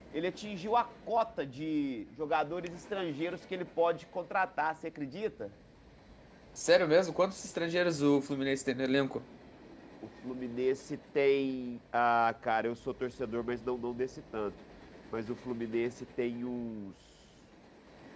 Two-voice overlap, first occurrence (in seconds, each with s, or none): none